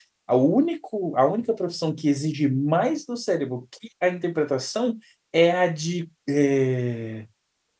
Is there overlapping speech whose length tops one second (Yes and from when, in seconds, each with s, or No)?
No